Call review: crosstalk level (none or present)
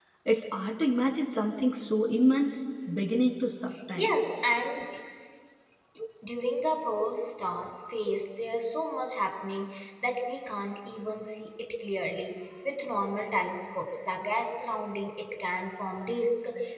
none